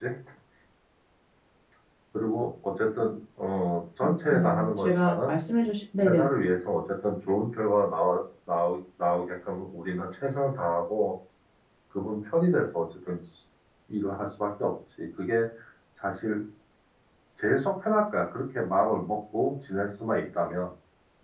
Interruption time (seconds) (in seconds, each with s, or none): 4.0 s